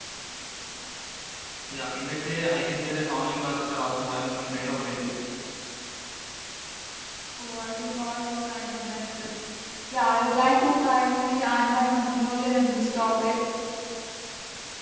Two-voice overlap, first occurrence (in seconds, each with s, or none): none